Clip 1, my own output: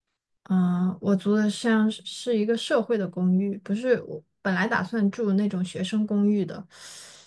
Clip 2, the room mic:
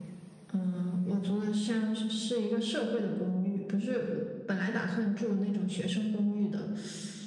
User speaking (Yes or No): No